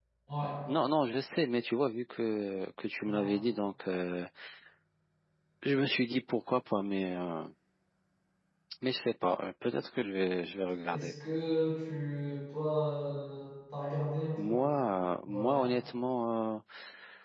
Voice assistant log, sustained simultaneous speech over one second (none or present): none